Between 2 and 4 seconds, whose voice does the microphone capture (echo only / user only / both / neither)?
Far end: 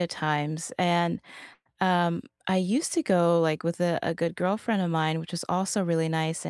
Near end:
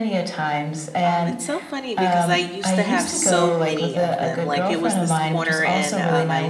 both